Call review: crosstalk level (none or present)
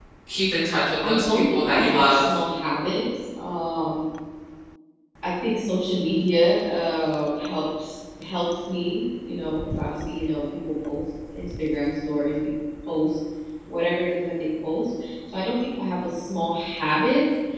present